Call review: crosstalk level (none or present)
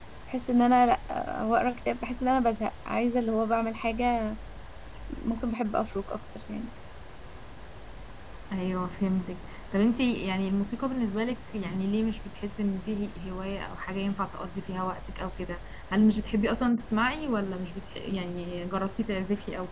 none